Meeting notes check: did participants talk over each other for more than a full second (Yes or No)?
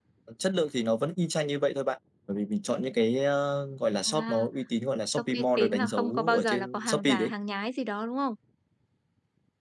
Yes